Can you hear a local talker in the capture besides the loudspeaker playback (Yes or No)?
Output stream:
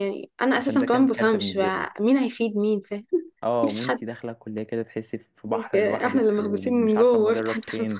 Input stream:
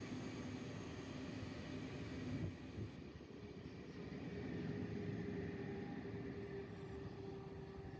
No